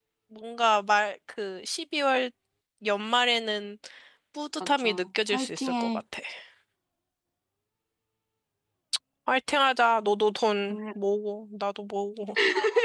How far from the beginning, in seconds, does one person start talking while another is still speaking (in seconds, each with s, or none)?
4.7 s